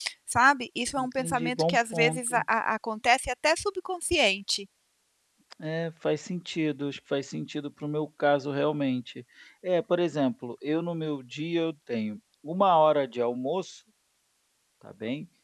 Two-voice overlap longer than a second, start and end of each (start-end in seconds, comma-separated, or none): 1.0-2.4